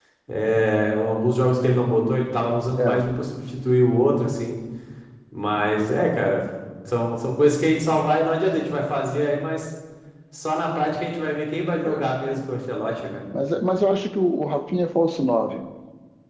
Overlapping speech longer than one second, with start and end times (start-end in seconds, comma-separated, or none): none